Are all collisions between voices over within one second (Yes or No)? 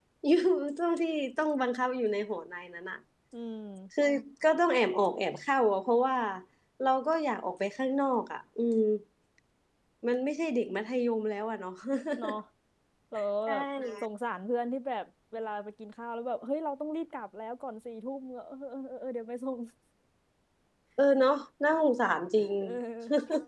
Yes